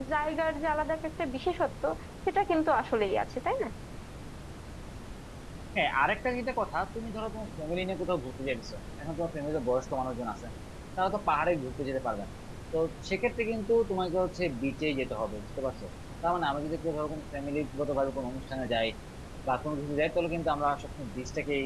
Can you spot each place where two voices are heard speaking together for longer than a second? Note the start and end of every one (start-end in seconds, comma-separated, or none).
none